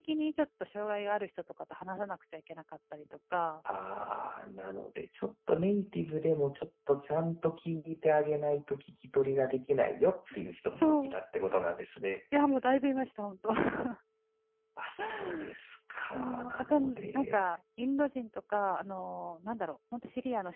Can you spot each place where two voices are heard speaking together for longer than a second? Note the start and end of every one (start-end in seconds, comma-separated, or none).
16.1-17.5